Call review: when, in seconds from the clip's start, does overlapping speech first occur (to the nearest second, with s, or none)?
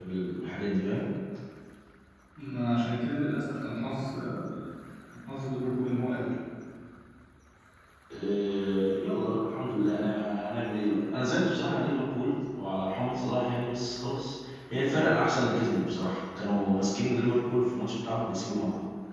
none